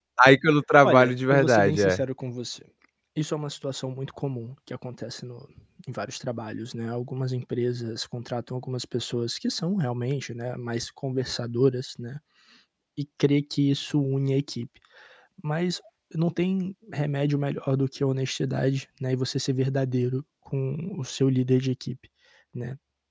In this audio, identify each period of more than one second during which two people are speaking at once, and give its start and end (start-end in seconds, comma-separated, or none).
0.8-2.0